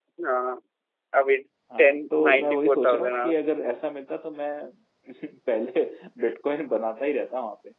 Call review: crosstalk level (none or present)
present